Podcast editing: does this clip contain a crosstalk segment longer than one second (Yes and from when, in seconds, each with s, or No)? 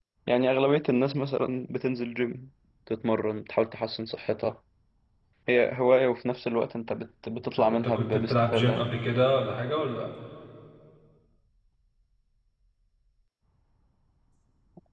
Yes, from 7.6 s